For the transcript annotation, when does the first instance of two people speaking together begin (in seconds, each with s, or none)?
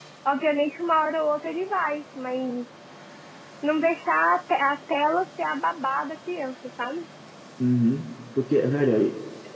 none